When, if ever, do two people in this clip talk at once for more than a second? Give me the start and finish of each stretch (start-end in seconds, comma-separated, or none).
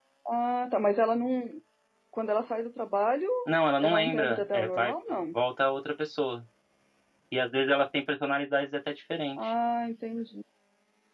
3.8-5.2